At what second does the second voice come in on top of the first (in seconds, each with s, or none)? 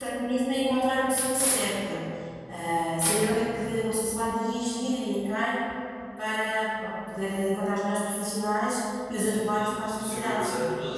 9.2 s